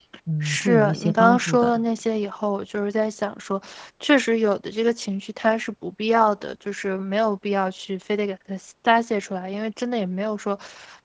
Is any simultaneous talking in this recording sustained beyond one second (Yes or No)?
Yes